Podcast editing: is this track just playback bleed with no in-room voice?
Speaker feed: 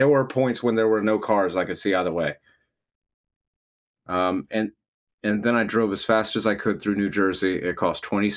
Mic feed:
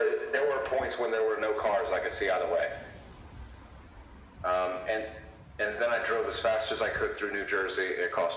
Yes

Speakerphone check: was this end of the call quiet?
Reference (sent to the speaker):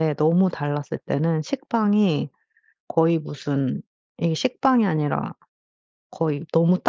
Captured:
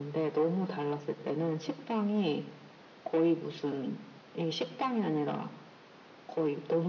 Yes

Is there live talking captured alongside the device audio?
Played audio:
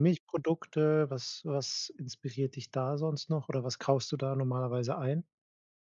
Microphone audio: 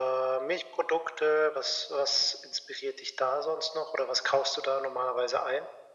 No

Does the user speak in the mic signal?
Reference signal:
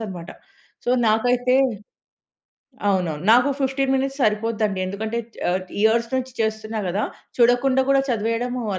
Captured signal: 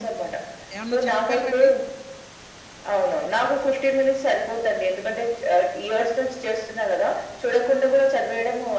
Yes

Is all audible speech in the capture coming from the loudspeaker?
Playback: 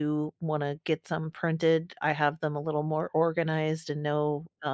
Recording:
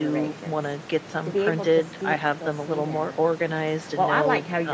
No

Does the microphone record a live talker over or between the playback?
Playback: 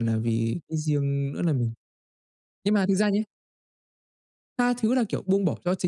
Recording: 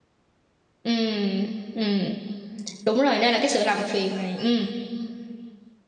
Yes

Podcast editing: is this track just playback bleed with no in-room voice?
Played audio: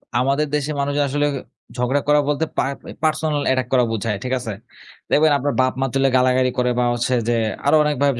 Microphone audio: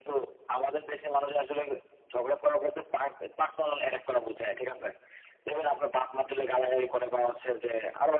Yes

